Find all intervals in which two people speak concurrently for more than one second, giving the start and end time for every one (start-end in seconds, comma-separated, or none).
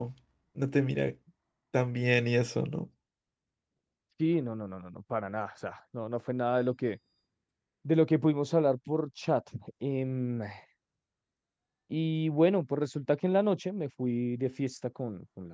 none